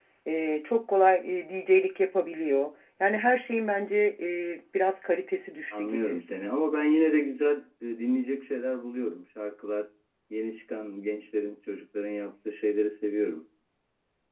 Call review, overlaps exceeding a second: none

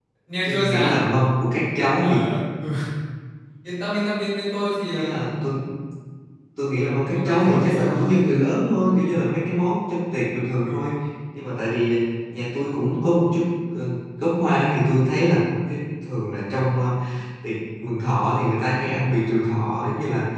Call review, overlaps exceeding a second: present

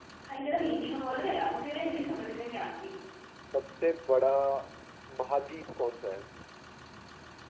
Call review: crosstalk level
none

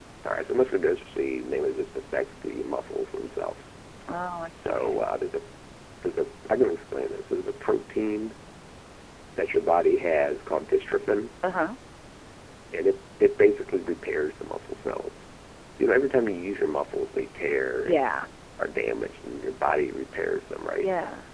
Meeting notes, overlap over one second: none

